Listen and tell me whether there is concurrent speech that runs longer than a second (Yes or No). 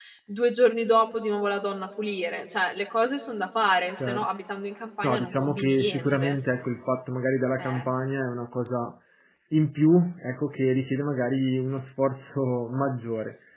Yes